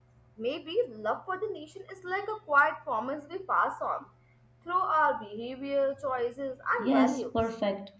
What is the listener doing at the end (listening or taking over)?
taking over